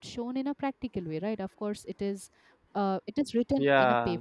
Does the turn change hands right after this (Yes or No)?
No